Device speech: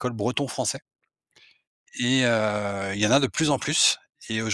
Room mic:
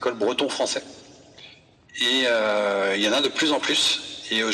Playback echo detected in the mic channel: Yes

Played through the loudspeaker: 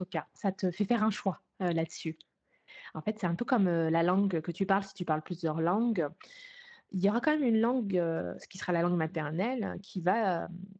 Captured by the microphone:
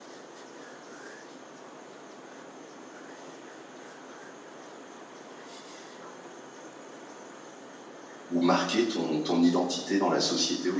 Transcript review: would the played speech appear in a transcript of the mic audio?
No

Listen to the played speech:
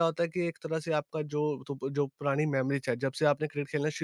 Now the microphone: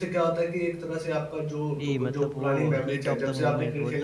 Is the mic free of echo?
No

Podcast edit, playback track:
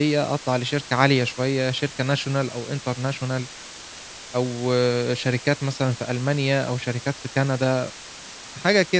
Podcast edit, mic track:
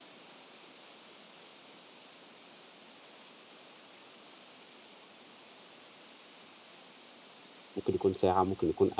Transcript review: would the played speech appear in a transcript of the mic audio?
No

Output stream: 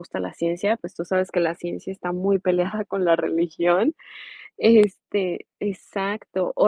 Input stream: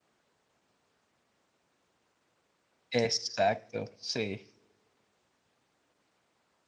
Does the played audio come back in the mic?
No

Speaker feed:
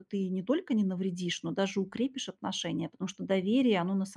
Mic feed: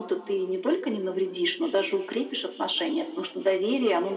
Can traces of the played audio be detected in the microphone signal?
Yes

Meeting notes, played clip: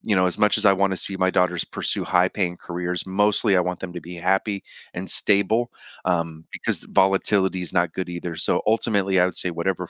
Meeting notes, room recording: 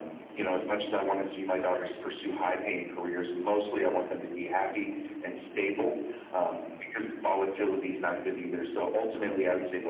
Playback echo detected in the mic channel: Yes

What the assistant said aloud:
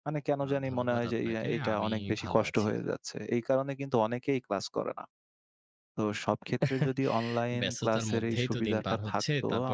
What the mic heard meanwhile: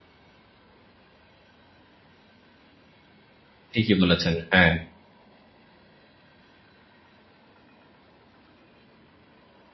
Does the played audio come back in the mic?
No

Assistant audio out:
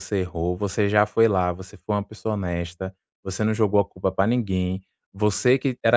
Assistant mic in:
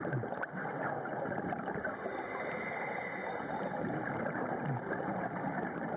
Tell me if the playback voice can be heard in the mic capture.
No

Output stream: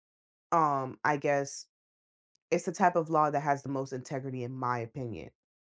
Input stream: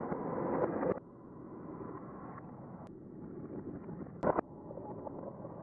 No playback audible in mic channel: Yes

